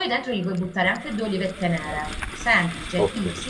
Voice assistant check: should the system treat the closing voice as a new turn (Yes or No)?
No